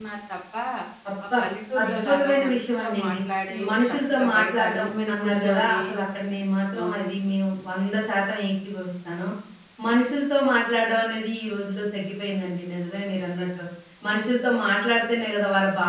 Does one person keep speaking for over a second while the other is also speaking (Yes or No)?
Yes